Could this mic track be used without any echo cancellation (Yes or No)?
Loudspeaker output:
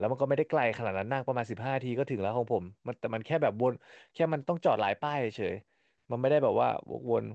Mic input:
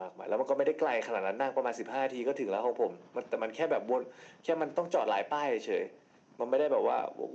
No